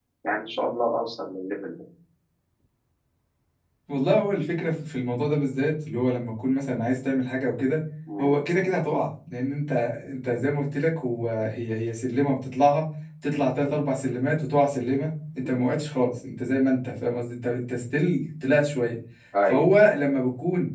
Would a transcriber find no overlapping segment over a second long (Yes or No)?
Yes